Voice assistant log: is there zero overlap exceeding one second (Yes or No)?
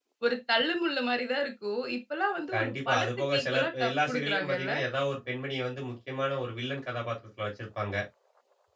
No